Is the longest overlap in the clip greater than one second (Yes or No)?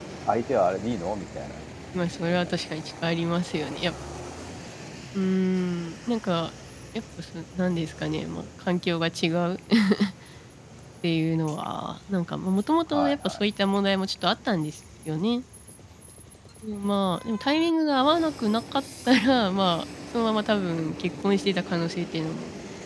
No